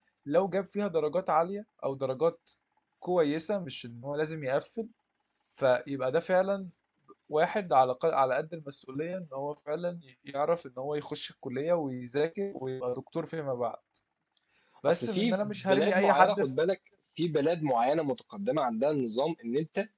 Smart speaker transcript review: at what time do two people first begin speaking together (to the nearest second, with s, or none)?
15 s